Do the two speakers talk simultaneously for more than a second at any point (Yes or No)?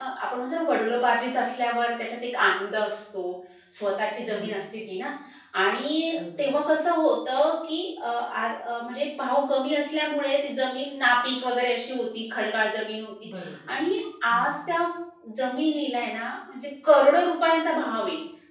No